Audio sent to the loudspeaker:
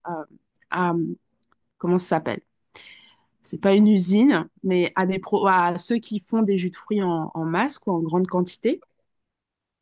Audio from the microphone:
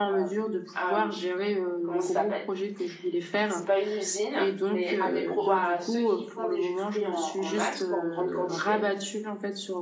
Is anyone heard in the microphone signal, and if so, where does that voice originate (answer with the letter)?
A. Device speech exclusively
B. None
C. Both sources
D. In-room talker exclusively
C